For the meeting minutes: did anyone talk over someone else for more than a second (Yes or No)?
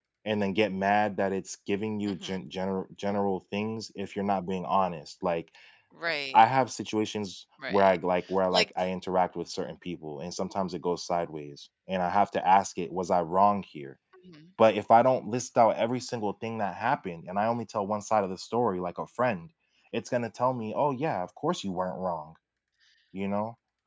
No